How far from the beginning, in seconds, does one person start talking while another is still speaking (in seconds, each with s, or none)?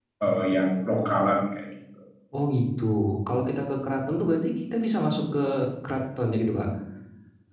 none